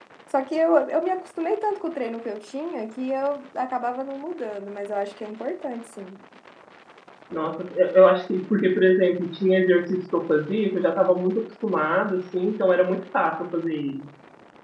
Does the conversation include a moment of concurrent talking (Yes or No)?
No